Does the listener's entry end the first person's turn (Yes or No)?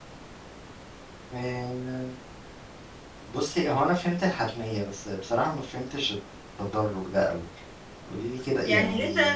Yes